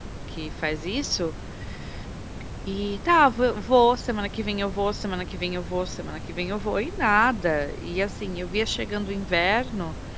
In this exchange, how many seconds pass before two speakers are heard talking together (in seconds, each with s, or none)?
none